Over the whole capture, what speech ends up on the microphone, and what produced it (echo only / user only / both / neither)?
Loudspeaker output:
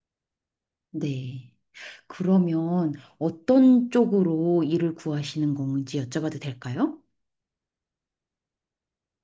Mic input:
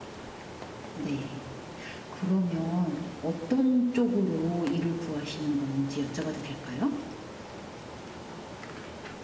echo only